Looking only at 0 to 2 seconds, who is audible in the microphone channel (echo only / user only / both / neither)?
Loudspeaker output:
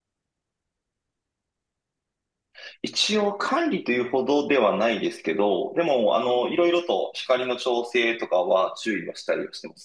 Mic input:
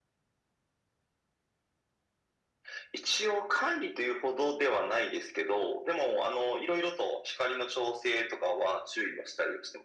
neither